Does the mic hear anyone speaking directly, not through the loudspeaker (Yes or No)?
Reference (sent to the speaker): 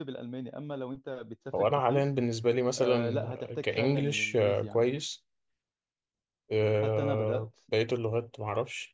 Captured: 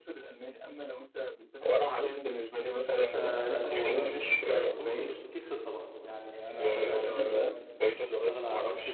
Yes